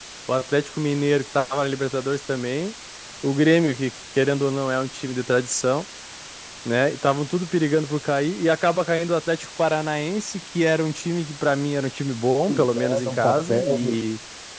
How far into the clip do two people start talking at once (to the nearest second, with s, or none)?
12 s